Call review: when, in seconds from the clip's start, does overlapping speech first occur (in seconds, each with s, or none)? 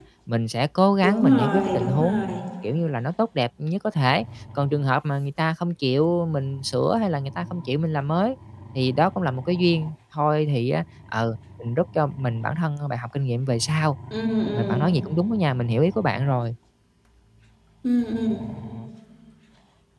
1.0 s